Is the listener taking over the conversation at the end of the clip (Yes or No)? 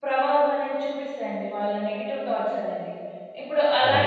No